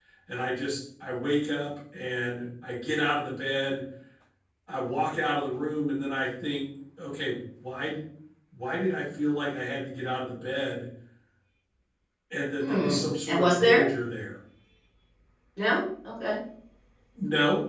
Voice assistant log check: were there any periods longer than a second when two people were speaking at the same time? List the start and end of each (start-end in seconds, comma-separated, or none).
12.6-13.9